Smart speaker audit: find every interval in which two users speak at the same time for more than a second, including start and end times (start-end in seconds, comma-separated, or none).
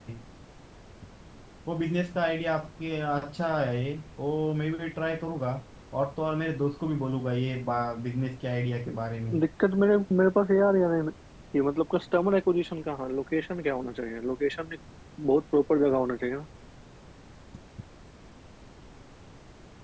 none